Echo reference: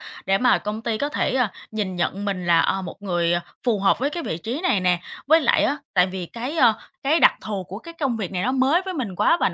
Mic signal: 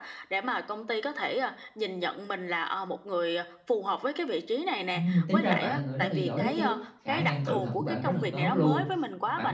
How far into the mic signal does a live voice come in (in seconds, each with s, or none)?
4.9 s